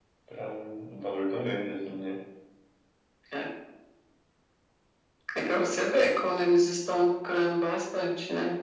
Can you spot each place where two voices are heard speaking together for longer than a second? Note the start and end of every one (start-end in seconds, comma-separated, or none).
none